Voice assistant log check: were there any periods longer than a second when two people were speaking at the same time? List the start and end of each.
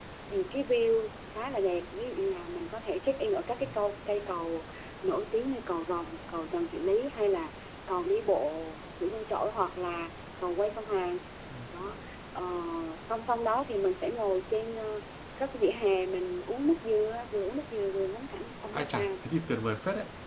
none

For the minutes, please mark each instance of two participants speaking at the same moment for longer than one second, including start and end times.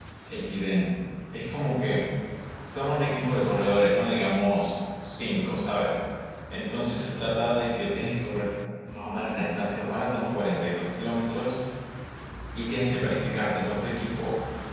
none

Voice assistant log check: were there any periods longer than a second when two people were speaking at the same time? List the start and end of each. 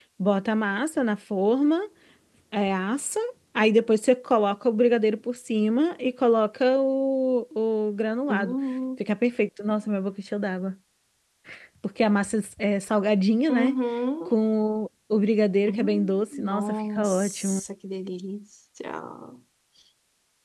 15.7-17.6

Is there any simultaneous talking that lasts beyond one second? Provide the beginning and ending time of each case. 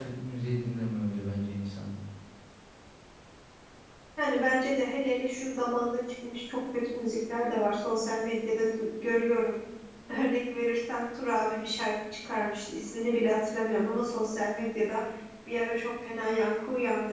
none

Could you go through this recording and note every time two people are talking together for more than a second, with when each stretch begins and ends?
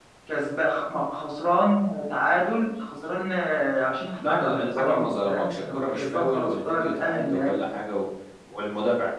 4.2-7.5

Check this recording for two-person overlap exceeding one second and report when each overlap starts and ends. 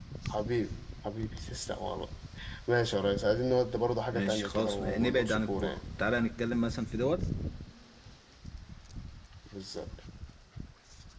4.1-5.8

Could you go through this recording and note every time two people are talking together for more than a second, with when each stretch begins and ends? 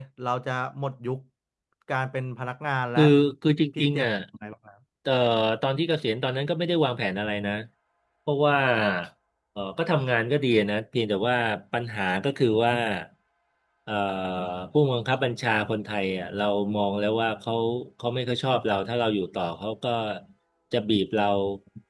none

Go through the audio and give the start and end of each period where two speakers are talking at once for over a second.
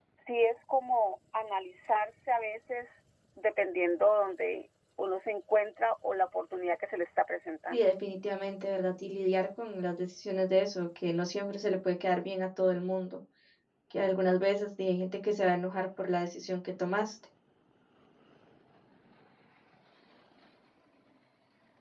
none

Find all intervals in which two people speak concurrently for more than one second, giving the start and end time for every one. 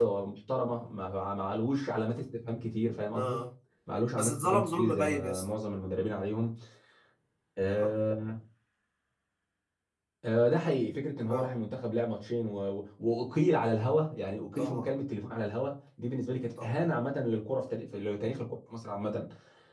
4.2-5.4

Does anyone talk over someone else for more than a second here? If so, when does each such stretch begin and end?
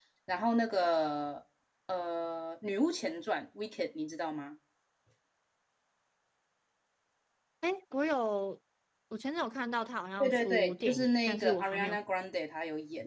10.2-11.9

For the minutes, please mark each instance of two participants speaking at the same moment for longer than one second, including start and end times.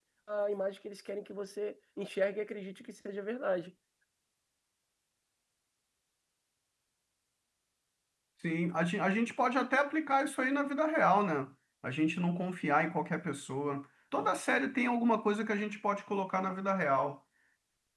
none

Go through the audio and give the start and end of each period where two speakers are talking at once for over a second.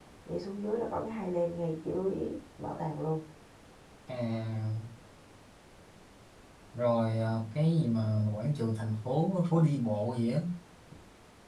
none

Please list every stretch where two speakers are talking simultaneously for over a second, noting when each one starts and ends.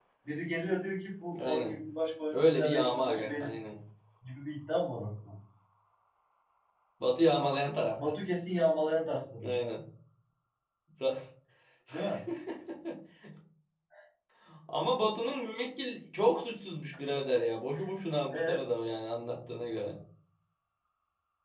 2.3-3.5

